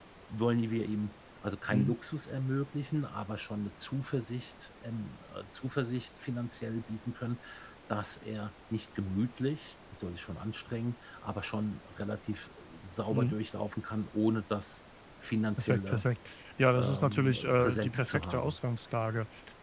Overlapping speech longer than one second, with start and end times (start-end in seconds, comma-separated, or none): 16.7-18.6